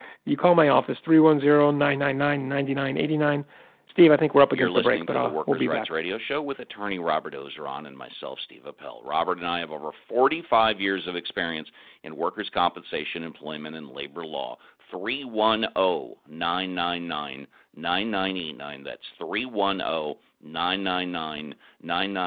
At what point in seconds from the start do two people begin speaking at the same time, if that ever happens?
5 s

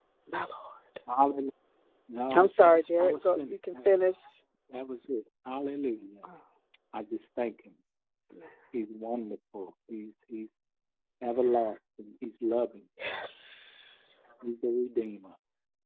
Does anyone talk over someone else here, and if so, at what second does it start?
2 s

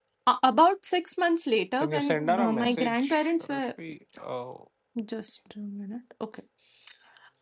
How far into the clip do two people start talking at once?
2 s

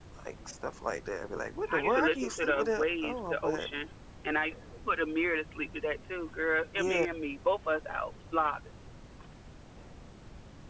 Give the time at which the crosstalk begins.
2 s

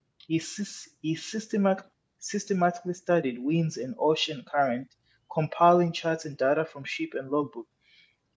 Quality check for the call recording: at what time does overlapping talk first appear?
none

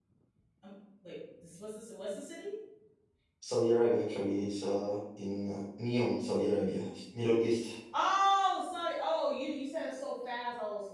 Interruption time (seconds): none

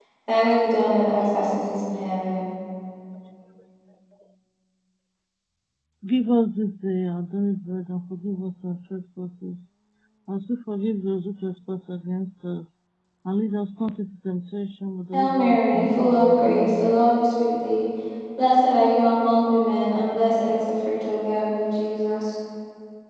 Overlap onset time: 15 s

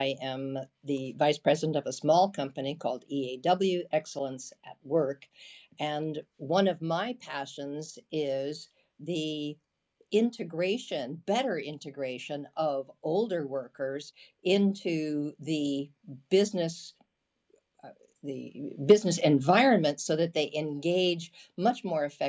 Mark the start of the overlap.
none

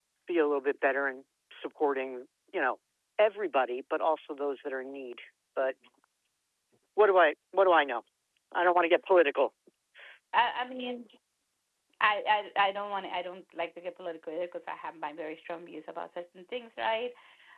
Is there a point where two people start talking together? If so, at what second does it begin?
none

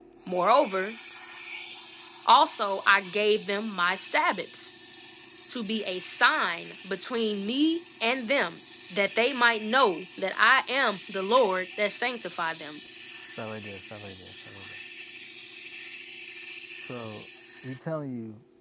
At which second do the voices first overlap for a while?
none

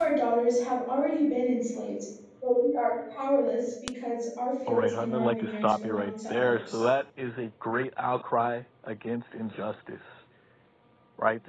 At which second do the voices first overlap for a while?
5 s

